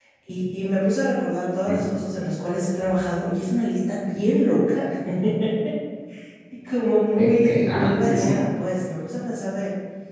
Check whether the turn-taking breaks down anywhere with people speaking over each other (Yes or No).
Yes